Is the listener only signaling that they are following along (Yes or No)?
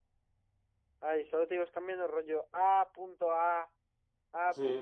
No